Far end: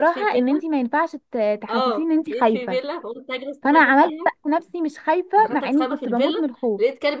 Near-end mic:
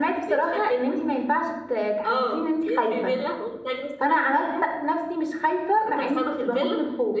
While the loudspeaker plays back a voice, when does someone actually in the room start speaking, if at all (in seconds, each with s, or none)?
none